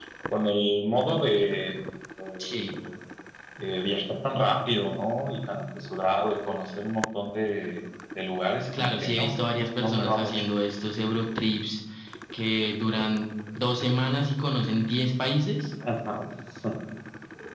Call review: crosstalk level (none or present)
present